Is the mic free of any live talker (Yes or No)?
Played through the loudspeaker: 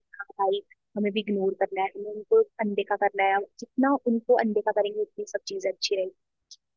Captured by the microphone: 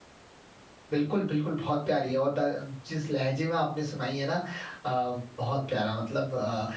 No